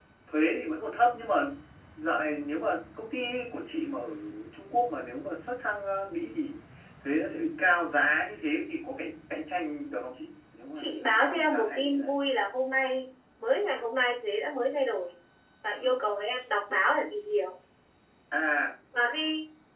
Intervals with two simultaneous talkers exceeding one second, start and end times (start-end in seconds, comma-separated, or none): 10.7-12.2